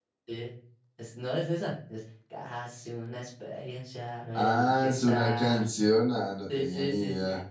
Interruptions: present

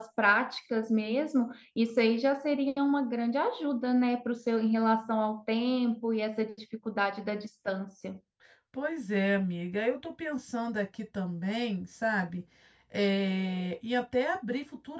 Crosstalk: none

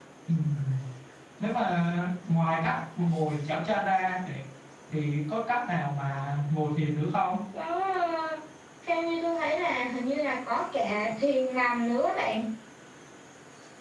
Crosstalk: none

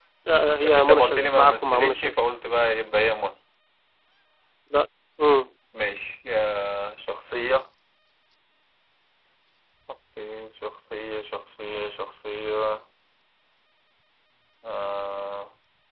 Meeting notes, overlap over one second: present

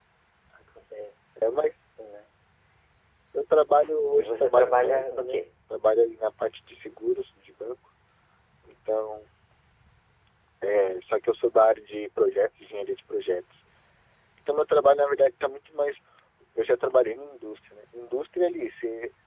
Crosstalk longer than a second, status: present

